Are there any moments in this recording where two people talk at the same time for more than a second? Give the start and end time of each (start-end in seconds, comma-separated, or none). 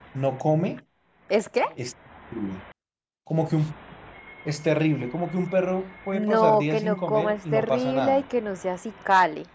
6.3-8.2